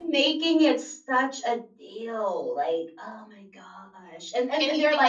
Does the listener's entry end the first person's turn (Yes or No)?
Yes